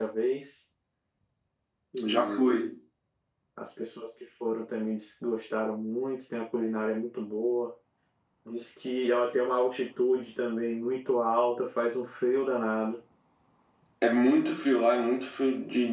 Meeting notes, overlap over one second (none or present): none